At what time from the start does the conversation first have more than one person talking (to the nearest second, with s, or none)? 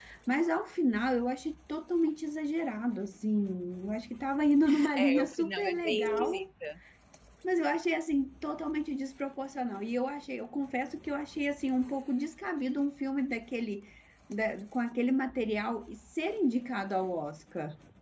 5 s